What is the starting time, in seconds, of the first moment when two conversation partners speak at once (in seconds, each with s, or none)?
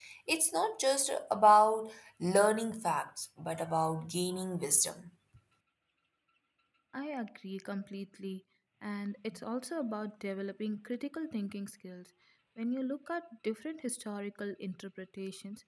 none